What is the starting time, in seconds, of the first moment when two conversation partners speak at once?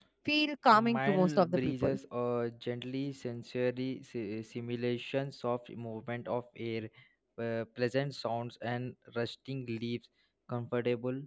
0.7 s

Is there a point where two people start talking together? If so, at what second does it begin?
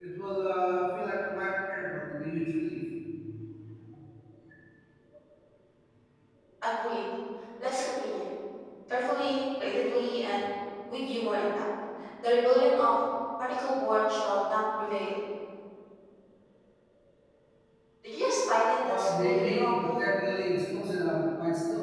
18.8 s

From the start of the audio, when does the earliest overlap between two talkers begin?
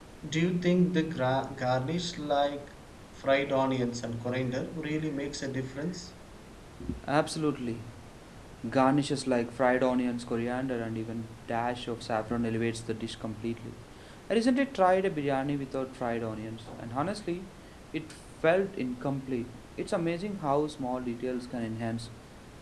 none

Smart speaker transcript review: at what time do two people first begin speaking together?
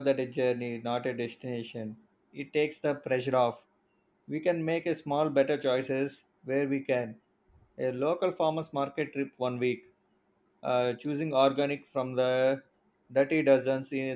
none

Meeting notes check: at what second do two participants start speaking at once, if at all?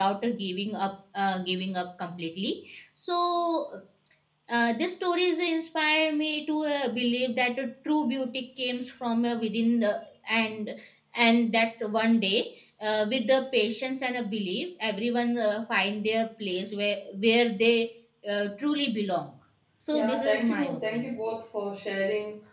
19.9 s

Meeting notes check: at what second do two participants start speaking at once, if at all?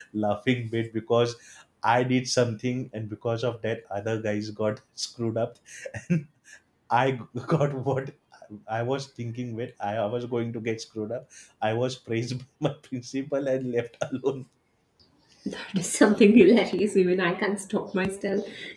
none

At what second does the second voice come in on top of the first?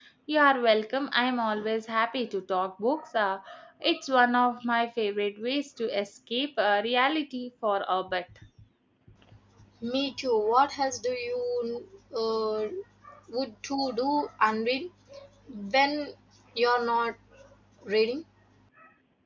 none

